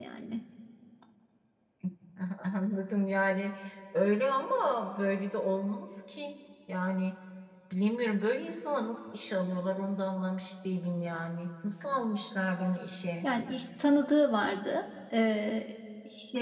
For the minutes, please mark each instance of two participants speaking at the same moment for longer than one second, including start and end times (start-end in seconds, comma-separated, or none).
none